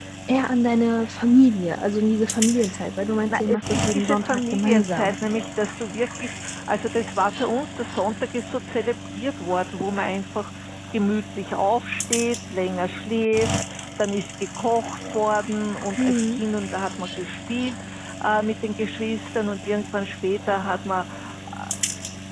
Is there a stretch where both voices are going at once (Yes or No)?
Yes